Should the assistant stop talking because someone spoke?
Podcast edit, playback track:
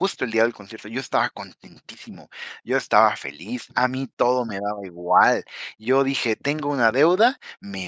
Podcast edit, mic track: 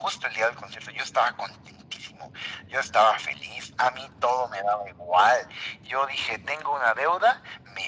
No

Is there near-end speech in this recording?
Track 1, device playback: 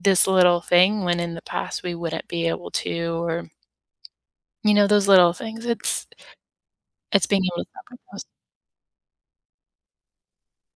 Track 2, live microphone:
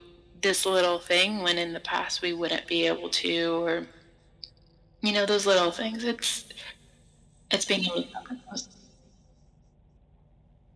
No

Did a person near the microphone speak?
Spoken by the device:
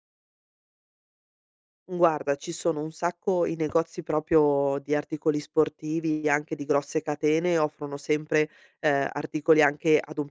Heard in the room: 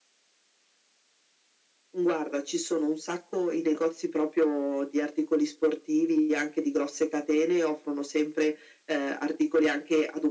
No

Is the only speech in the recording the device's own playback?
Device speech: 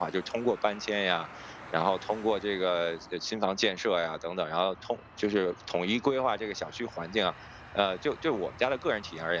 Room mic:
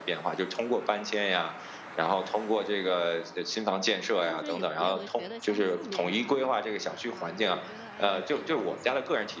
No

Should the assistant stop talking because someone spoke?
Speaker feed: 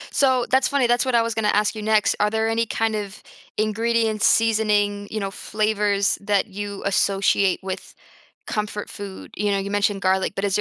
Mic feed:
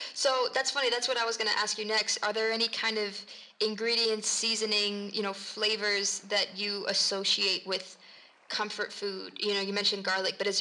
No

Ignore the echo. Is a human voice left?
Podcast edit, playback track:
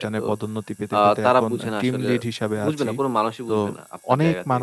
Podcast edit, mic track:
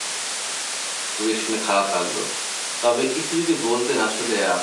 Yes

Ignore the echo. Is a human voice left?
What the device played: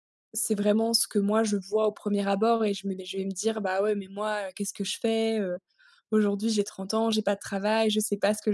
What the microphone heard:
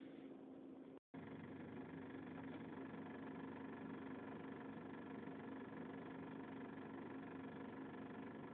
No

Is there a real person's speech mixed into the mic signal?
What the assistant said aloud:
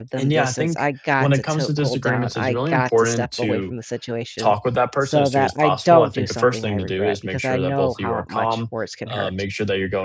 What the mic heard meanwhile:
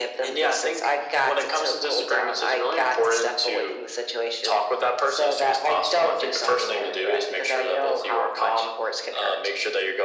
No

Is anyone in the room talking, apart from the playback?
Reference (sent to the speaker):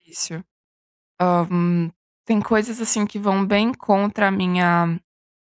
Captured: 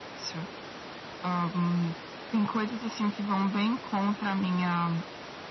No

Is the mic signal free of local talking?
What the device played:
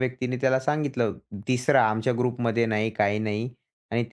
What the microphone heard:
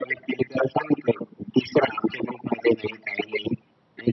Yes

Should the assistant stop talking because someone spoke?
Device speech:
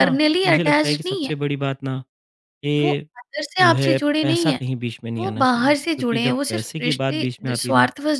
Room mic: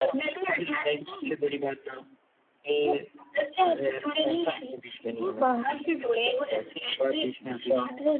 No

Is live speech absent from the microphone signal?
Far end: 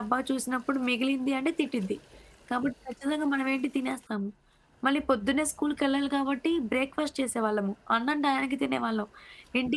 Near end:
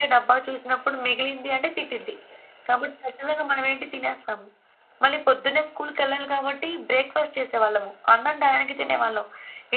No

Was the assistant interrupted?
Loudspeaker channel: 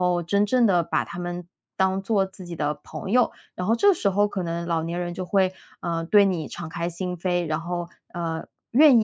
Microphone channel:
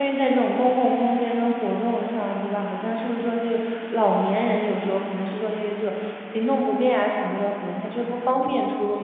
Yes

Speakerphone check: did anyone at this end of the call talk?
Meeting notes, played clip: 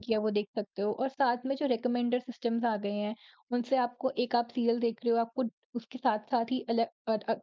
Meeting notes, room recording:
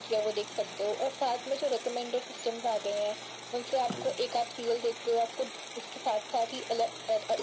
No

